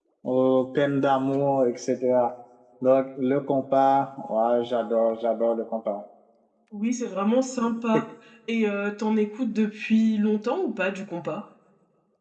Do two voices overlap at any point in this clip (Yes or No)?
No